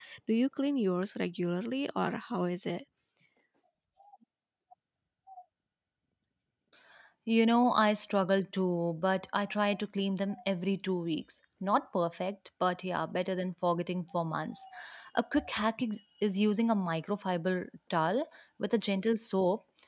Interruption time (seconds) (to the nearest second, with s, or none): none